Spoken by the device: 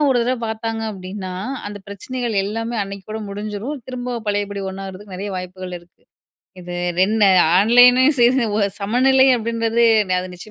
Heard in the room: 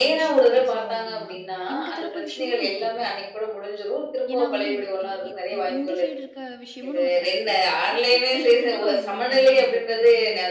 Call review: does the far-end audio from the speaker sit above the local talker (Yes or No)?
Yes